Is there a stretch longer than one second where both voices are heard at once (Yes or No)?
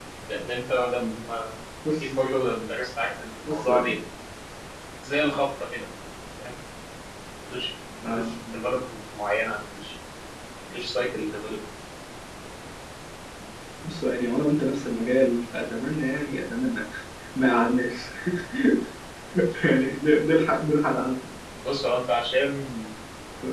No